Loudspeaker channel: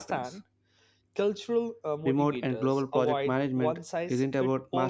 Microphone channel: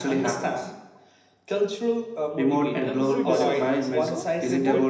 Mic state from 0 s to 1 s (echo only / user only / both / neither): echo only